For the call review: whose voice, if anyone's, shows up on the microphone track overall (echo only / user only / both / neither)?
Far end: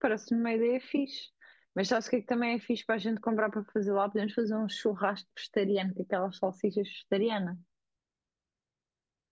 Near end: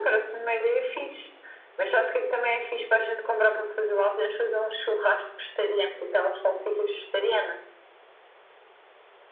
echo only